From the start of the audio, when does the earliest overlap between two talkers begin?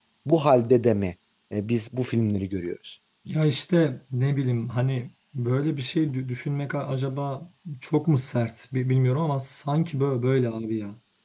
none

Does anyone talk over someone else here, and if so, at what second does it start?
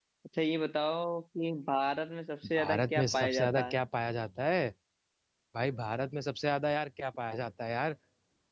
2.4 s

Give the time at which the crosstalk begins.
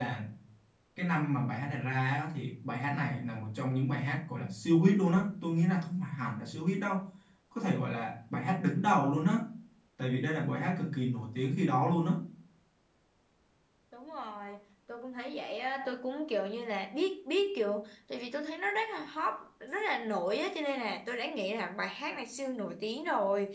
none

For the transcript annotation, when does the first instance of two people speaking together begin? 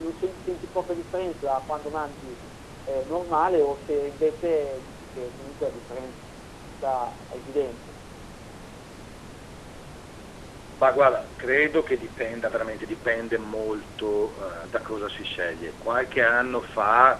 none

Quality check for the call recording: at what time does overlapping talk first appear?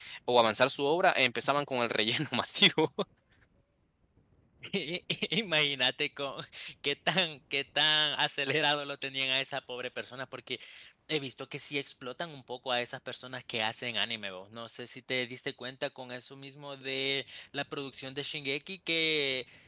none

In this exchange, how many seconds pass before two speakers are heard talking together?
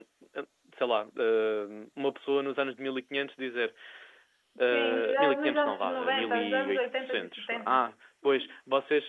4.7 s

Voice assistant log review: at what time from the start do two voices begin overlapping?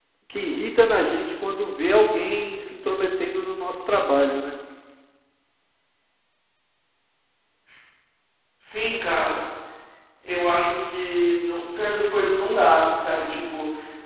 none

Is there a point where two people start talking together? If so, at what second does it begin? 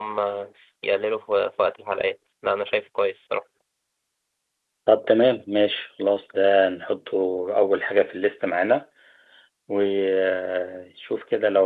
none

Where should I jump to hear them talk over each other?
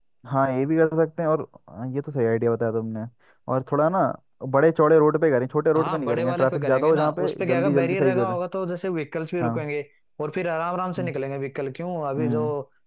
5.8 s

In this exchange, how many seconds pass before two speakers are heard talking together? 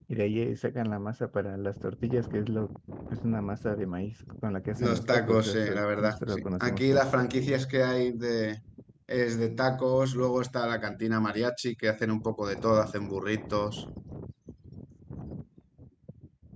4.8 s

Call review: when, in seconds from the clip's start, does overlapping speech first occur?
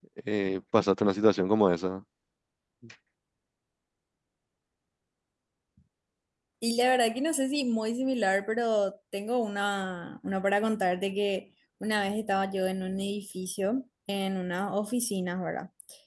none

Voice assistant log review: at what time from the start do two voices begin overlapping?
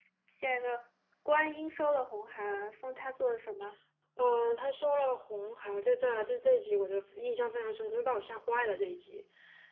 none

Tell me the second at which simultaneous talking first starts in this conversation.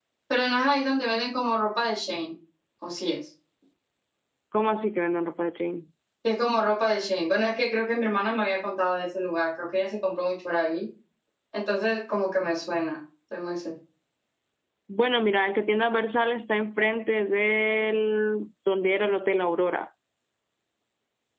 none

